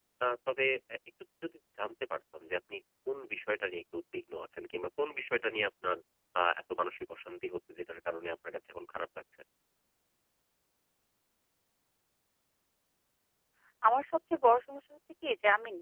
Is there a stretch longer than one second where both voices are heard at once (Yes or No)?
No